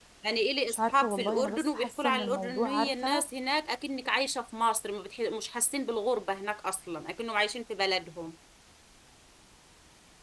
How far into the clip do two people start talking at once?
1 s

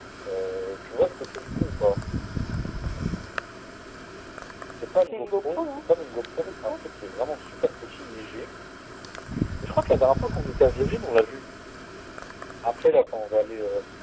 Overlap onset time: 5 s

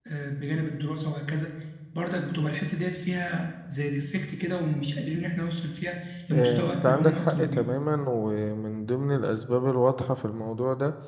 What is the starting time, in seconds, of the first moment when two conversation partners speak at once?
6 s

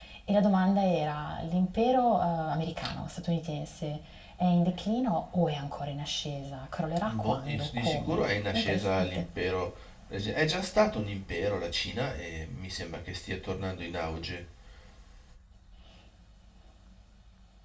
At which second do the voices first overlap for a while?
7 s

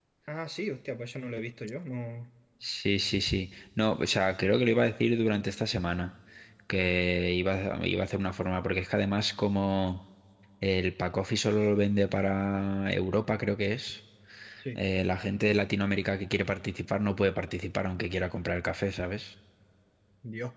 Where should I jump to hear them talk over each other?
none

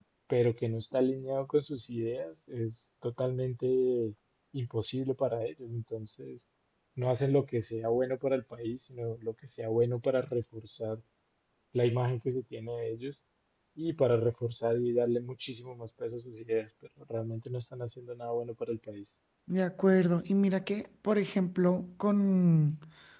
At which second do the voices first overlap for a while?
none

